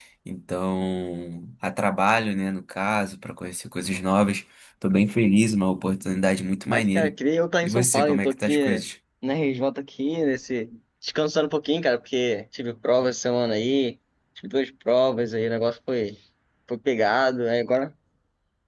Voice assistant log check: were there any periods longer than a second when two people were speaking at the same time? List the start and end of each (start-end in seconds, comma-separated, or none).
7.6-8.8